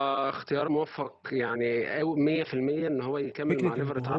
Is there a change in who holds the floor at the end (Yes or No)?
Yes